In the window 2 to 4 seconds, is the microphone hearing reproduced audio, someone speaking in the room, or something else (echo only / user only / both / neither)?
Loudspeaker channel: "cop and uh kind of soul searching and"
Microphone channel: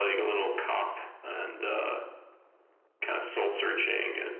echo only